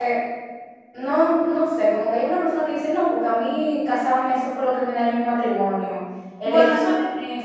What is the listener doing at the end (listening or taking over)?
listening